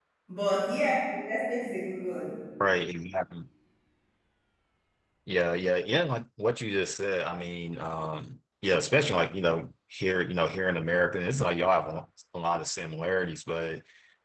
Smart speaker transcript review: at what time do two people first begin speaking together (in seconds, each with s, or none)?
none